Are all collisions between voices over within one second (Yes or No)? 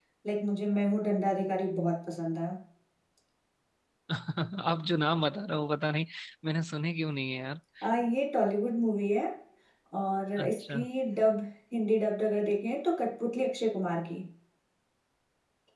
Yes